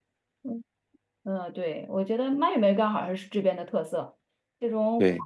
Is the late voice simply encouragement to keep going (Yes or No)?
Yes